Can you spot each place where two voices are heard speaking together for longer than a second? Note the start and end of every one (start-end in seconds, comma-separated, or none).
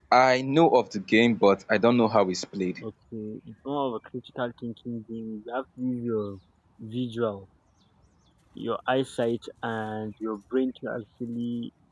none